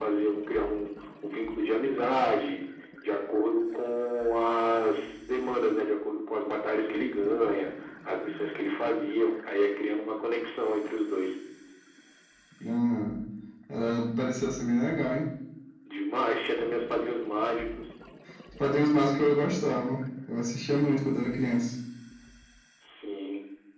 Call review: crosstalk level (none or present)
none